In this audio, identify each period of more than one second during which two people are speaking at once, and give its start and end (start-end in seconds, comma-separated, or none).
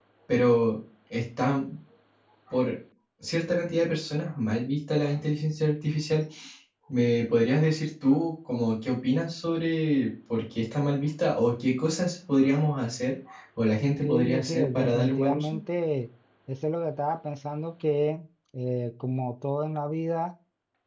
14.0-15.6